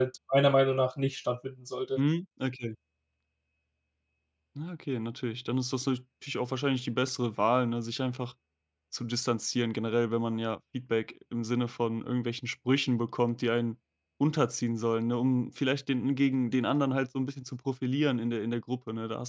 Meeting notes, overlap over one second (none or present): none